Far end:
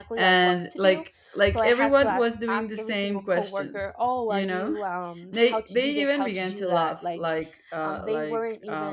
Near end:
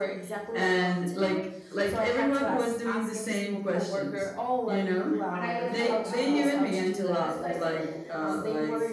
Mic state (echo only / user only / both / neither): both